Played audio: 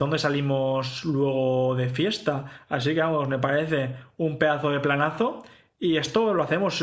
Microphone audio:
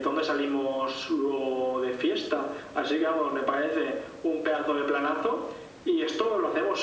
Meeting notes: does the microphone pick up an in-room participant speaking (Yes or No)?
No